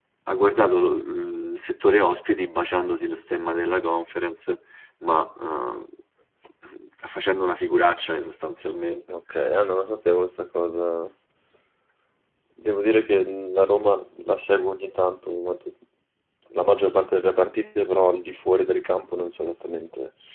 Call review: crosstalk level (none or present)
none